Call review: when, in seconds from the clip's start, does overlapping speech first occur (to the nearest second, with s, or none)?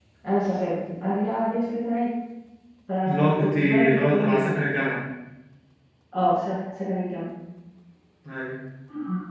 3 s